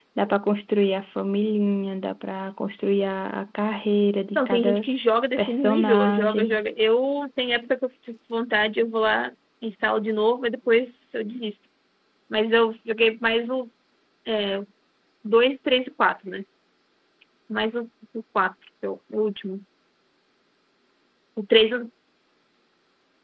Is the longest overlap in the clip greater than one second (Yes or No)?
Yes